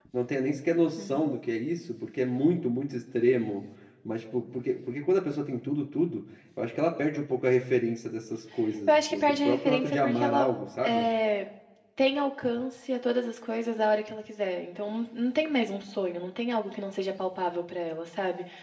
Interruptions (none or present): present